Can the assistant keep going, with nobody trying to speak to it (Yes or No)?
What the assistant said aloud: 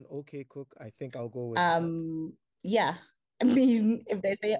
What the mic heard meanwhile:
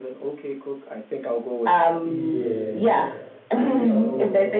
No